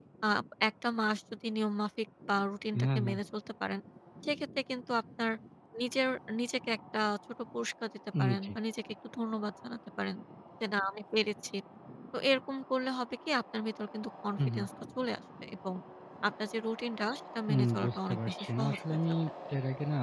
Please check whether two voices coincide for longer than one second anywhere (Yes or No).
Yes